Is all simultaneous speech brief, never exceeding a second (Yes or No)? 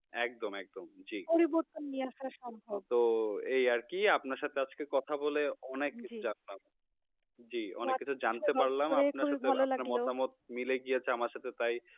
No